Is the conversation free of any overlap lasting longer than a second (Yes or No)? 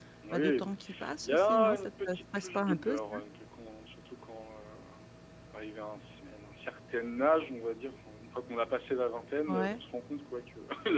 No